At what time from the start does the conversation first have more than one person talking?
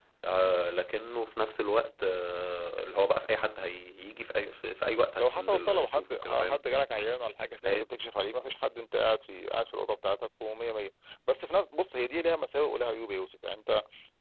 5 s

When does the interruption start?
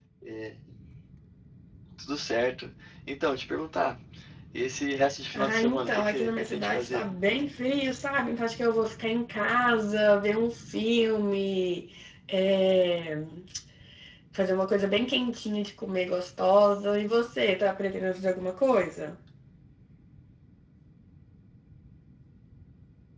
5 s

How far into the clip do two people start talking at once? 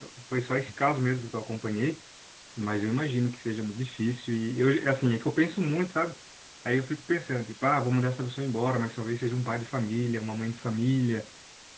none

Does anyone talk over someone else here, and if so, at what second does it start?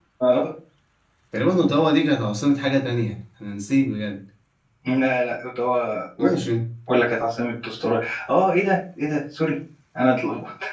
none

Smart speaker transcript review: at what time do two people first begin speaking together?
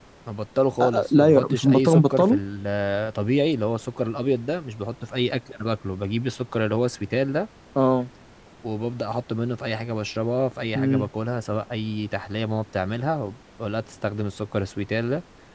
1 s

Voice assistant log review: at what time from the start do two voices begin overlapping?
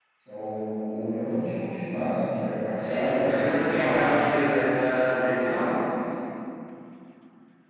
3 s

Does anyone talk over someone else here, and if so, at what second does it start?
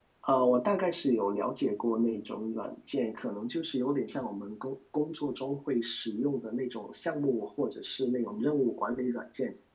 none

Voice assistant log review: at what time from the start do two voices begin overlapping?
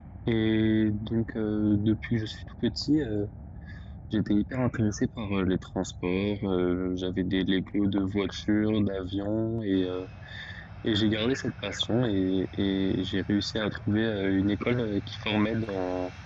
none

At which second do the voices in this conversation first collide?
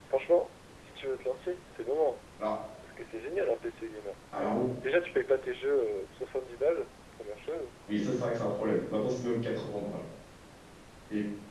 none

